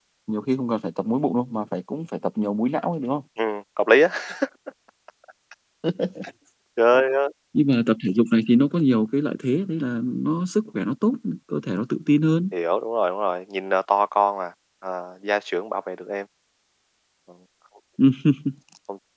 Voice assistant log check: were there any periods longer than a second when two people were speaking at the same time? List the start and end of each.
none

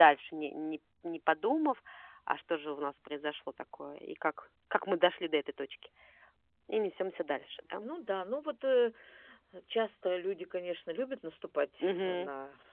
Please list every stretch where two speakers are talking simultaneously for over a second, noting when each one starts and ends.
none

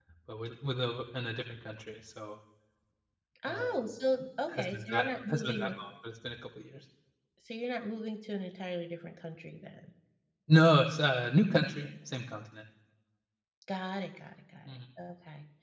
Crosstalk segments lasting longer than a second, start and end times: 4.5-5.7

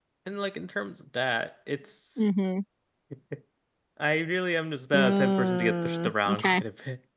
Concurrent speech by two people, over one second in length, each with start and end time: 4.9-6.6

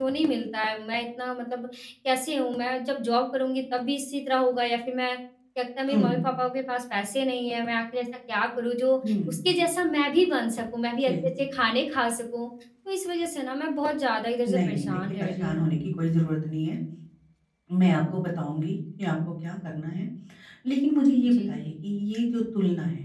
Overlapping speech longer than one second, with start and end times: 14.5-15.7

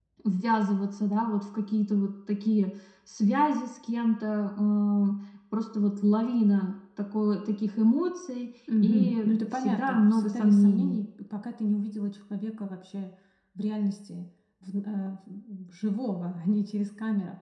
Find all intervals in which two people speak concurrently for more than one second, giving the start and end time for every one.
8.8-11.0

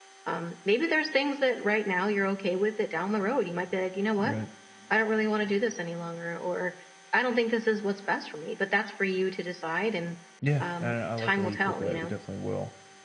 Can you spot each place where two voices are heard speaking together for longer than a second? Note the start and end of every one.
10.6-12.1

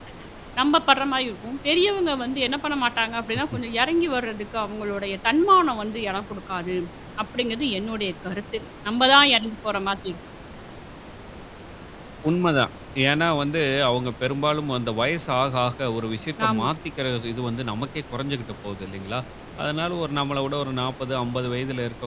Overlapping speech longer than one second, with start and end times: none

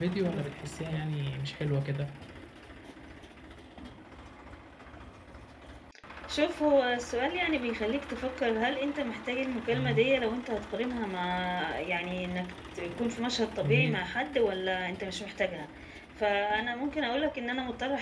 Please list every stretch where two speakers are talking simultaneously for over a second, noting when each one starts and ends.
none

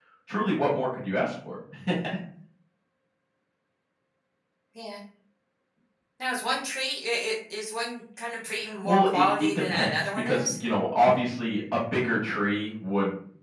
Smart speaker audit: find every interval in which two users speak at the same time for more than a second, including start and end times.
8.8-10.6

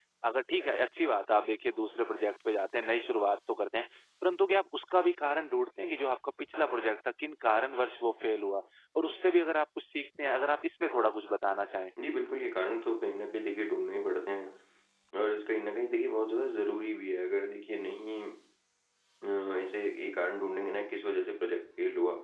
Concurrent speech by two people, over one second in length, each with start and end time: none

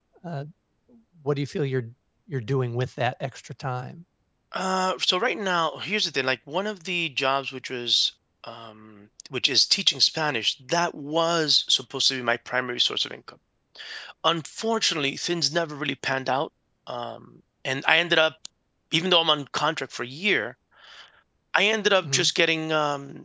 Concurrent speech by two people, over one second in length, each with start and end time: none

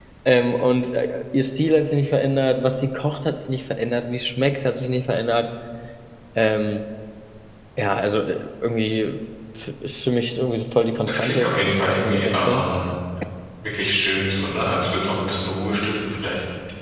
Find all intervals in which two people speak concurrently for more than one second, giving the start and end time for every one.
11.1-12.7

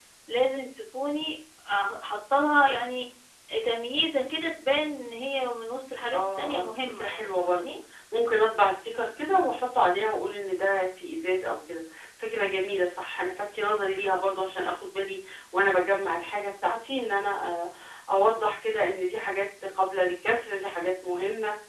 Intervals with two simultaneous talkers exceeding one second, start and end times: 6.1-7.7

